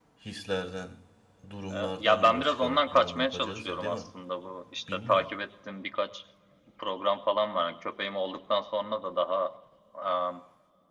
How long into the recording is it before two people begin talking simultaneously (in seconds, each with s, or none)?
1.7 s